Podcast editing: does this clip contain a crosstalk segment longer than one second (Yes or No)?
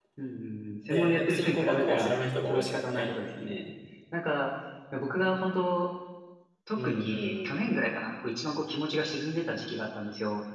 Yes